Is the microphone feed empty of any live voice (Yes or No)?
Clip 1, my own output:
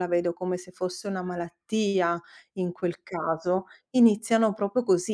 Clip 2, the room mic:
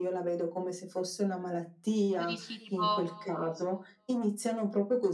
No